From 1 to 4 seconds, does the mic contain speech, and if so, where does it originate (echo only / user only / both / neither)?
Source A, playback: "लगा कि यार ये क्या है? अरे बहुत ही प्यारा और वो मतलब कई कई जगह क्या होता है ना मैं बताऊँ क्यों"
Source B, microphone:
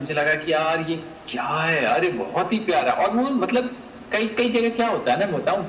echo only